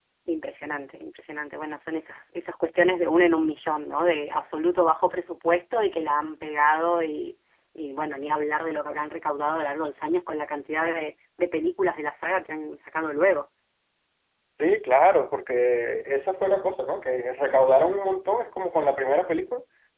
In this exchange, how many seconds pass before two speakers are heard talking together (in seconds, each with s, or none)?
none